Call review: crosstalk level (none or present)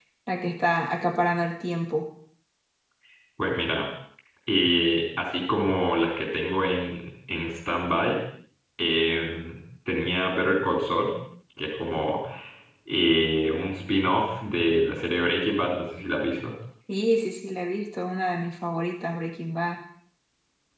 none